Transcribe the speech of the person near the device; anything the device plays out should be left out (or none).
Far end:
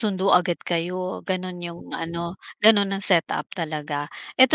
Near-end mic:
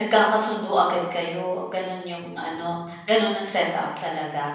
none